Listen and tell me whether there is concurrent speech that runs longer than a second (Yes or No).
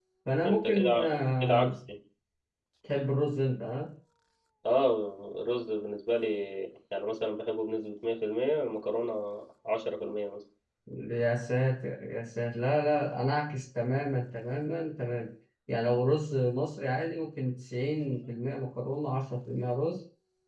Yes